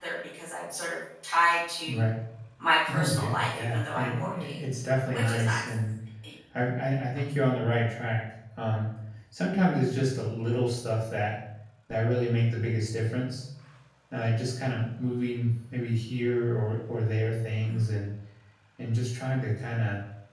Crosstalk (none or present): present